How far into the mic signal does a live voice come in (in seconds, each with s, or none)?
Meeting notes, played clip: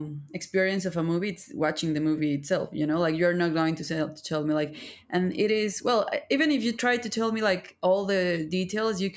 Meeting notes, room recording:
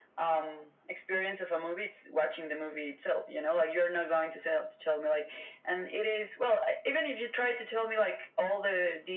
none